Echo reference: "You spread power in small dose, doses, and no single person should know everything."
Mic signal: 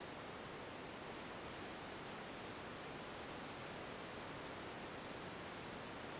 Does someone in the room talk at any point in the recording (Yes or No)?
No